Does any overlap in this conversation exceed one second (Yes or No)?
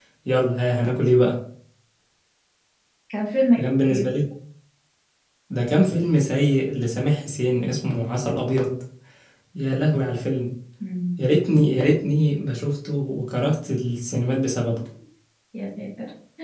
No